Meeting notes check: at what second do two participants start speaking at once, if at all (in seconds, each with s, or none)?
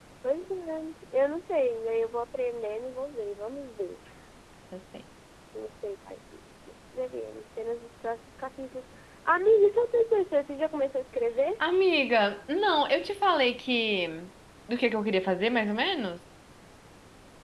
none